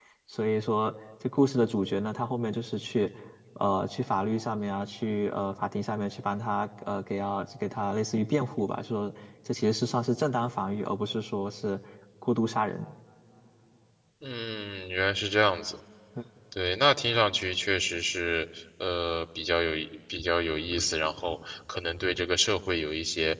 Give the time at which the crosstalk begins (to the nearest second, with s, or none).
none